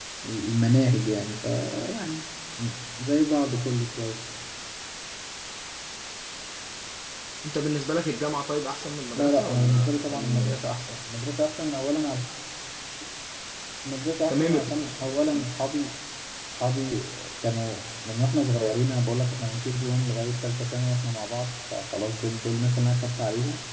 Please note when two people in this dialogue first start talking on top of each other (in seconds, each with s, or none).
9.1 s